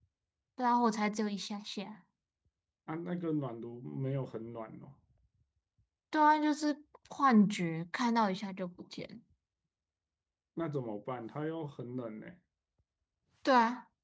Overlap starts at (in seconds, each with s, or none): none